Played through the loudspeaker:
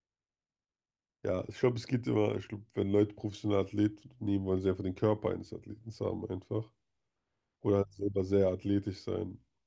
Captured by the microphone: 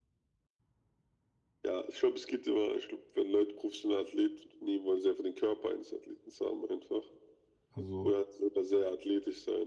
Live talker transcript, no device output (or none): Also,